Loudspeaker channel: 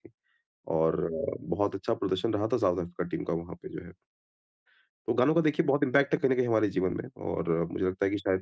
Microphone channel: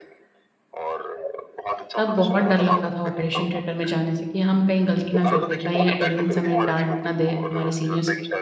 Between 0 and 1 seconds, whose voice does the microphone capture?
echo only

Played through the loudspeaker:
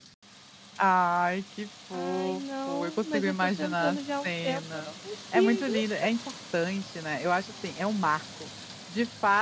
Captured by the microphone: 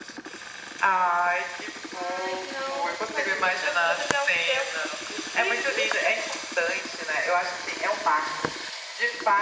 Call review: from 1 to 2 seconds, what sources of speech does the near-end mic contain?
echo only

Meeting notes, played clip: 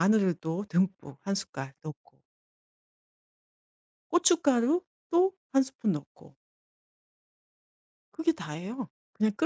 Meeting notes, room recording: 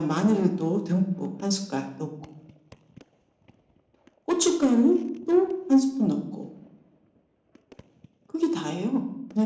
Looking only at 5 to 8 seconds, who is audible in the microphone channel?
echo only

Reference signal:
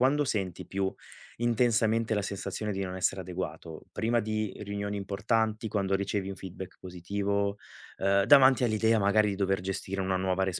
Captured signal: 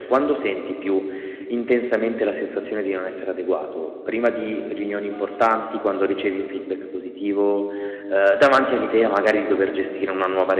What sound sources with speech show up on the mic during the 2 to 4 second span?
echo only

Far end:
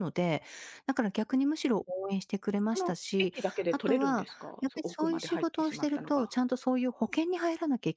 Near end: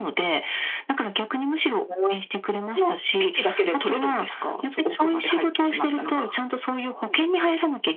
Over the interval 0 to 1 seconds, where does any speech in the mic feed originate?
echo only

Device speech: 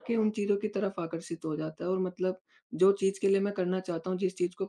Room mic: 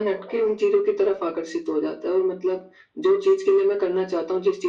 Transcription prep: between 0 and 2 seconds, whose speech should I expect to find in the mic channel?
echo only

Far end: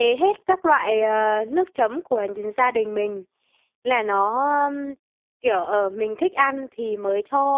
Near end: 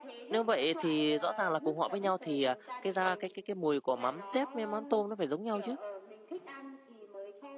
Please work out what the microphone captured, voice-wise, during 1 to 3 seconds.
both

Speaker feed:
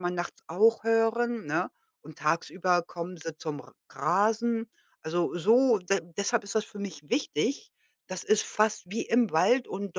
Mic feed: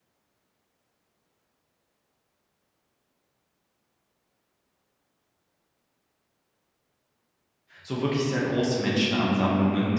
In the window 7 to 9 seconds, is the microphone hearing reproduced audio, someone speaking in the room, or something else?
user only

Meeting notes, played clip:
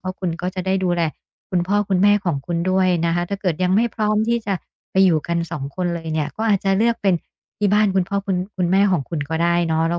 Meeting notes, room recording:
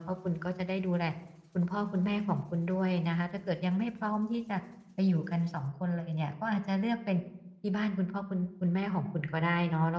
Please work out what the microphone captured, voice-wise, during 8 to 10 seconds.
echo only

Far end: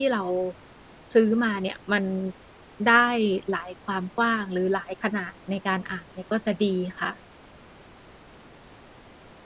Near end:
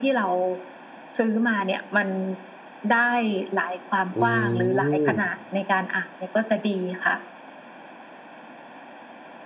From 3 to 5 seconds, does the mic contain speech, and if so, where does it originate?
both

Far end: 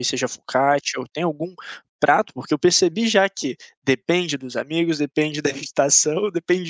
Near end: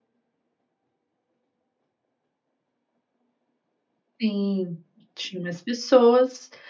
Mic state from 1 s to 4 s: neither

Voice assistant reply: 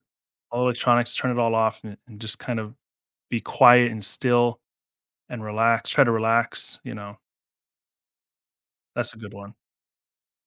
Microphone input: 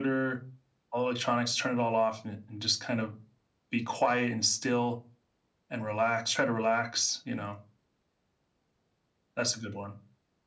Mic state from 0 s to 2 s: echo only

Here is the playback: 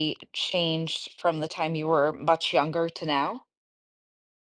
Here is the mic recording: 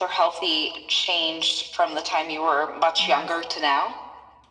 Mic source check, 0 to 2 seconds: echo only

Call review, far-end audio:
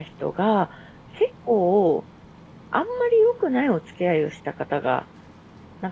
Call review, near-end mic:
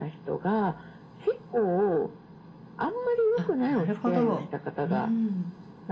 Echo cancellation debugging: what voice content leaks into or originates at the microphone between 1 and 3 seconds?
echo only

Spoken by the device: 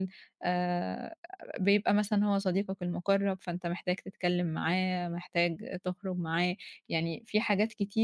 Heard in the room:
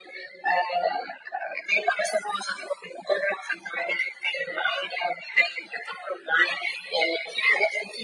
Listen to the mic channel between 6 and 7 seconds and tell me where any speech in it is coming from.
echo only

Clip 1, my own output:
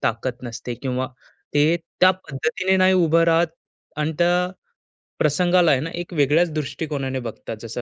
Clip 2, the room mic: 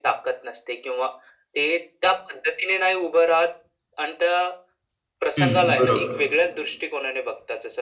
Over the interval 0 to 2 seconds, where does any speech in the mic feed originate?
echo only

